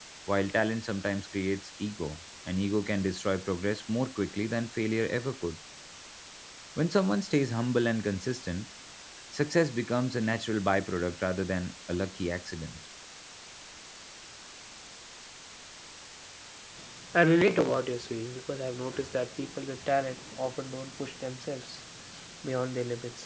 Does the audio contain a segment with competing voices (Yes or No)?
No